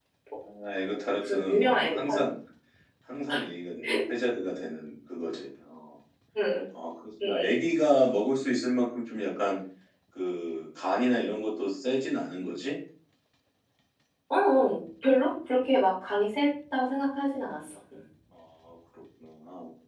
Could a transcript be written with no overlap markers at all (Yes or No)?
No